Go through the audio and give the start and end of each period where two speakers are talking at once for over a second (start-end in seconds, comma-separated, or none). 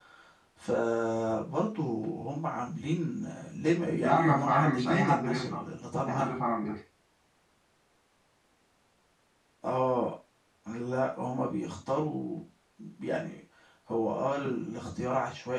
4.0-5.7